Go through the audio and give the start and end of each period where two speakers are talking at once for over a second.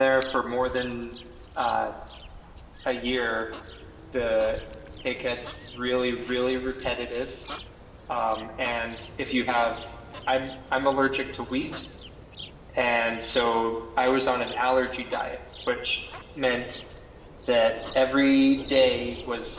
none

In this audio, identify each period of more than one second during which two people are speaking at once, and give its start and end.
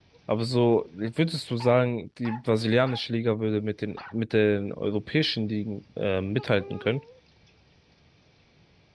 none

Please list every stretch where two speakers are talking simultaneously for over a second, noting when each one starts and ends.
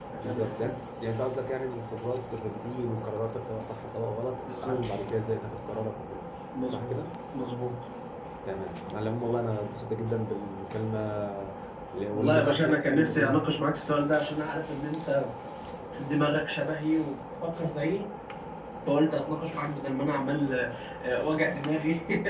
12.1-13.3

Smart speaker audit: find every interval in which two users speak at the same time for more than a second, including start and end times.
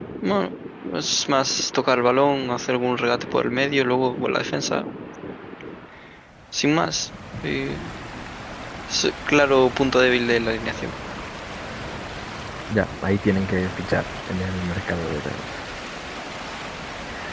none

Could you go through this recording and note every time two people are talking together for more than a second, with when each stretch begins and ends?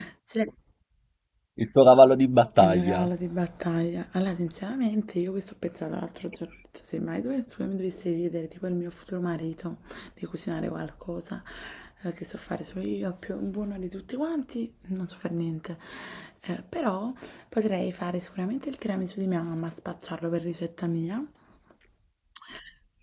none

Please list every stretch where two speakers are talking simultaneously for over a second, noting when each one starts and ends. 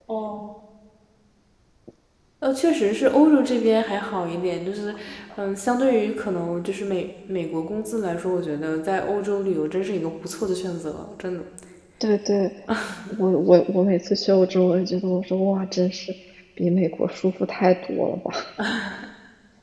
none

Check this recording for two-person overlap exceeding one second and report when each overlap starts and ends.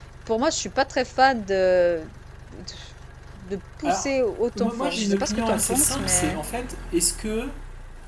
4.6-6.4

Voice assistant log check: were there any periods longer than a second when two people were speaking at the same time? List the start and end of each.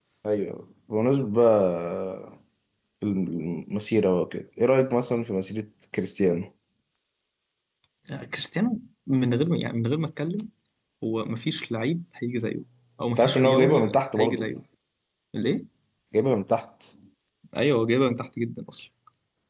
13.1-14.5

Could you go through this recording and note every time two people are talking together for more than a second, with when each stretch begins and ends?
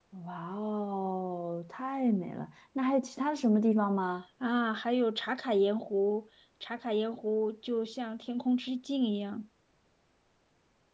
none

